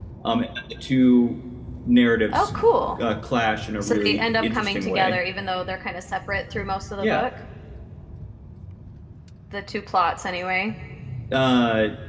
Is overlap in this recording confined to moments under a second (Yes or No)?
No